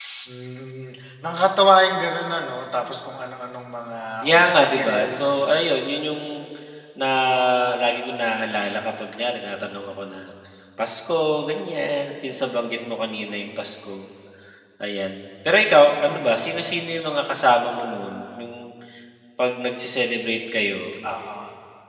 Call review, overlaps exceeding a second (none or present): present